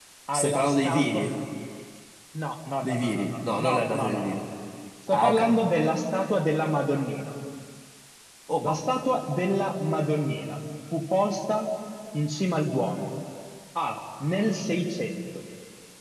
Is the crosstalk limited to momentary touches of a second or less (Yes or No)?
No